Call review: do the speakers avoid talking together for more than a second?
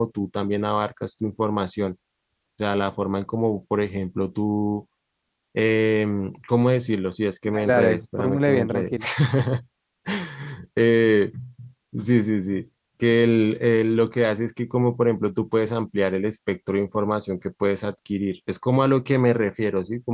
No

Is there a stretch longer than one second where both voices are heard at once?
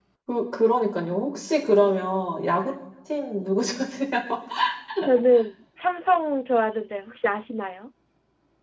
No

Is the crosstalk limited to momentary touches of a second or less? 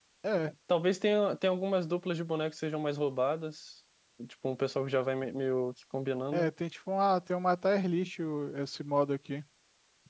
Yes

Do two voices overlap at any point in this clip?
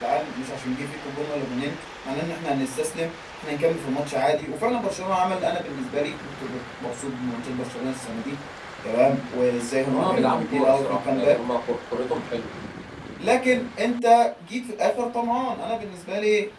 Yes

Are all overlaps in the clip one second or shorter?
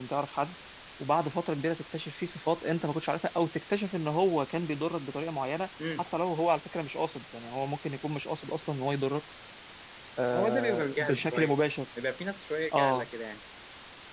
No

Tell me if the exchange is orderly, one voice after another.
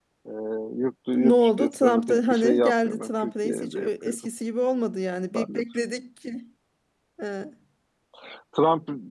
No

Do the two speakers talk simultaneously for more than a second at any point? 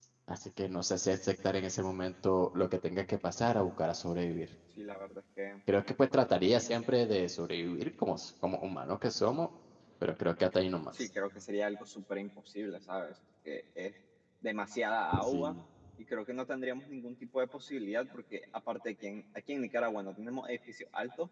No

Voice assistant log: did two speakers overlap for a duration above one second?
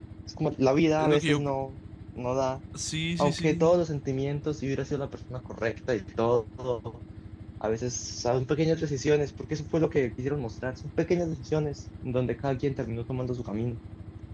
No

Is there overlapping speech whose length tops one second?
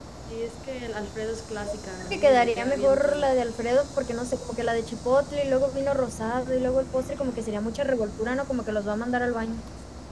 Yes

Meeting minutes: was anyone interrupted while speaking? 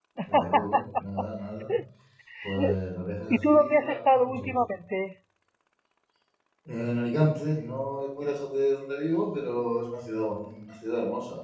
Yes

